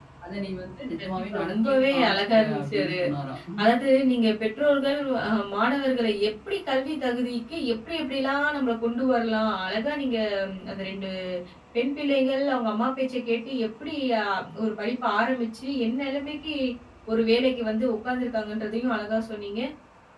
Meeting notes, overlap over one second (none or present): present